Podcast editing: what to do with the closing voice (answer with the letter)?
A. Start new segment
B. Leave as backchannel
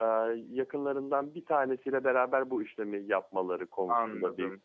A